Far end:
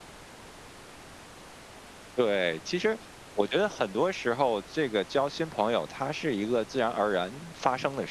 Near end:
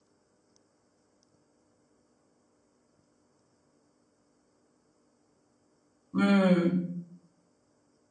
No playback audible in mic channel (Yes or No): Yes